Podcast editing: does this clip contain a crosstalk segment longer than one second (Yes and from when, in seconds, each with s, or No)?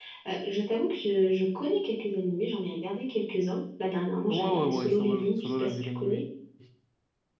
Yes, from 4.3 s